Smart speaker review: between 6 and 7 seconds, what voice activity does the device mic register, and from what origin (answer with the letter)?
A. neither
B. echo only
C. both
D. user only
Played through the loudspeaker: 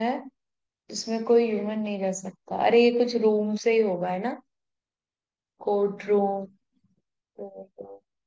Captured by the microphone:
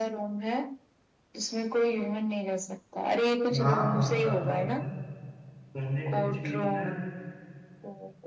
C